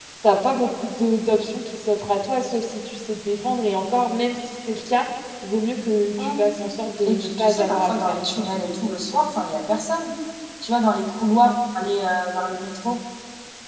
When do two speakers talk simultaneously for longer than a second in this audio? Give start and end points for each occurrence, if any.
7.1-8.5

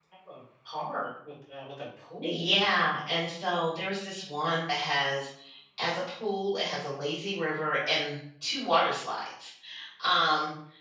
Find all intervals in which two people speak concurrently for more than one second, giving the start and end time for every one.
none

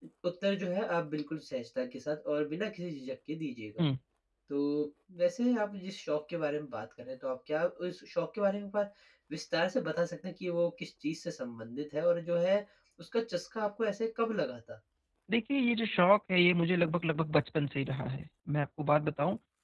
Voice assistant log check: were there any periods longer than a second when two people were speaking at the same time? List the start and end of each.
none

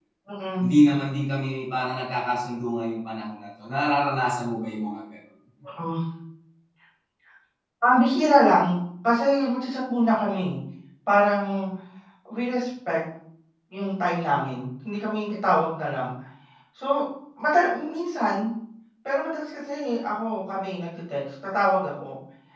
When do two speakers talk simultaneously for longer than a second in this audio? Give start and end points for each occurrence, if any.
none

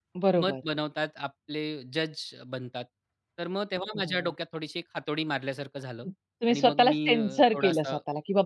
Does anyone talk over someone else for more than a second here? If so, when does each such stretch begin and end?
6.5-7.9

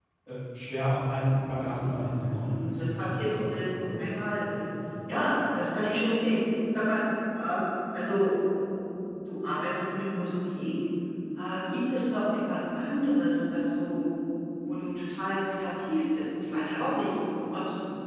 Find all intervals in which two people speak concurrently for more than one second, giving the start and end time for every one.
1.6-3.1

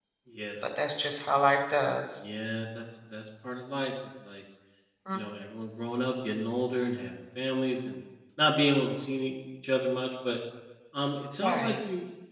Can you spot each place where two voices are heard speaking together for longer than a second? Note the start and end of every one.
none

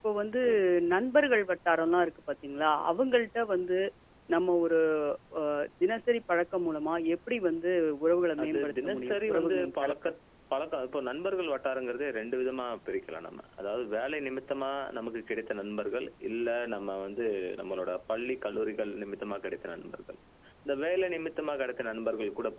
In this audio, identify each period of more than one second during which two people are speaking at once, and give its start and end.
8.4-9.9

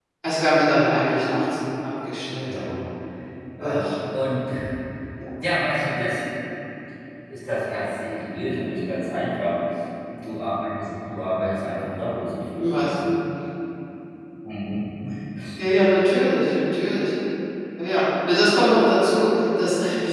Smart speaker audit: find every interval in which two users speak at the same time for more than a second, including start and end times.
none

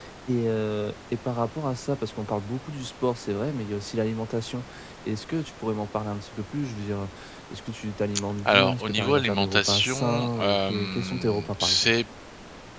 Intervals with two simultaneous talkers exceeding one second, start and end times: 8.4-11.9

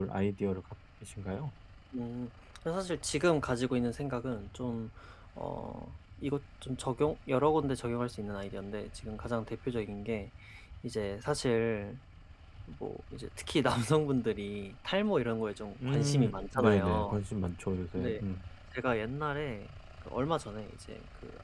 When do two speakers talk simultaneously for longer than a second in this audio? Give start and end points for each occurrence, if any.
15.8-17.1

